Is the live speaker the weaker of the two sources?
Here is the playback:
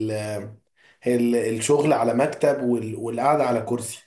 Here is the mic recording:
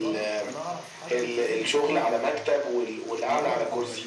Yes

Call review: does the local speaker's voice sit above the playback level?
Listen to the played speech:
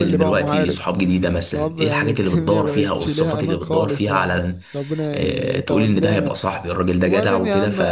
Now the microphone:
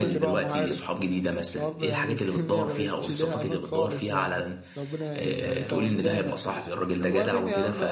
No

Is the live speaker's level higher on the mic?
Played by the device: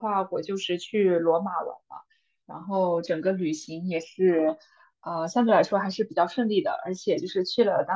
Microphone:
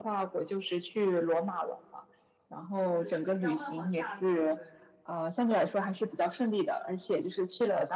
No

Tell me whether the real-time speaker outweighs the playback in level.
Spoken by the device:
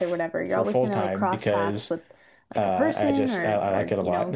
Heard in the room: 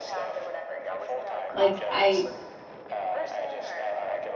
Yes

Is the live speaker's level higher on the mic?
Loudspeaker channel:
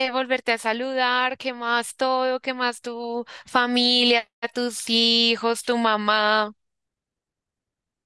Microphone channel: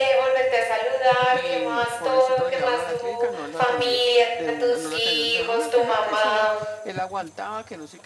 No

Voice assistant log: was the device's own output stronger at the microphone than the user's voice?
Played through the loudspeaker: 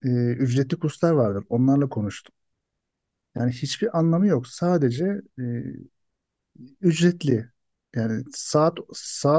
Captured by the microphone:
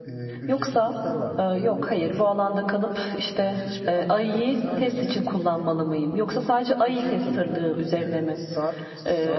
No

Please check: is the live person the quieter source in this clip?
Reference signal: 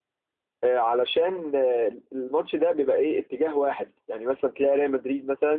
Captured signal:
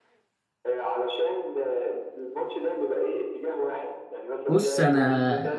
No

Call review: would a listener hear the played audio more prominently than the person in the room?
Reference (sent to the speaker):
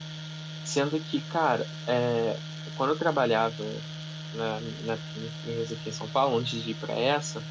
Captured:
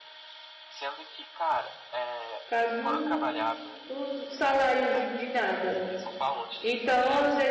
No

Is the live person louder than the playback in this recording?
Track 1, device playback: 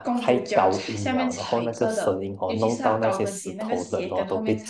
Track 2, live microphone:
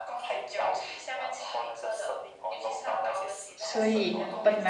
Yes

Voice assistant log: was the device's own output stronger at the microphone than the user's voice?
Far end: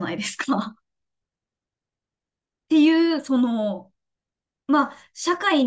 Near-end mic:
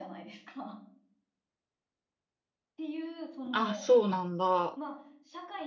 No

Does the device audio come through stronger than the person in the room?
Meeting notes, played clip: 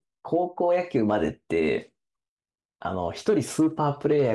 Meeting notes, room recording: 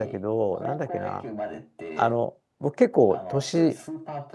No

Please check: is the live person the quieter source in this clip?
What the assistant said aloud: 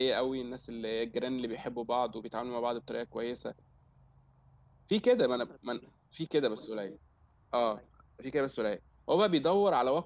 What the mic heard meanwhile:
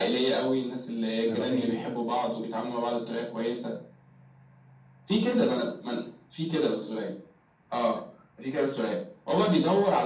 Yes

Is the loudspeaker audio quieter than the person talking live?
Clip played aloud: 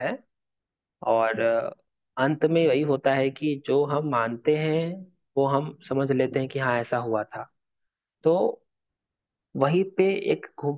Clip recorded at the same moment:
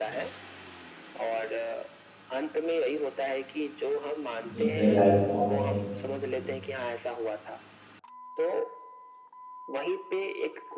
Yes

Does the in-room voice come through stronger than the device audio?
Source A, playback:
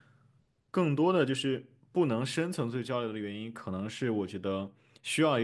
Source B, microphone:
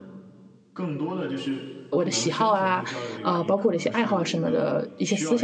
Yes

